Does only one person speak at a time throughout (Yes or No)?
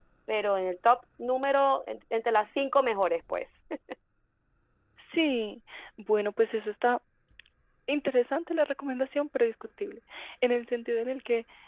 Yes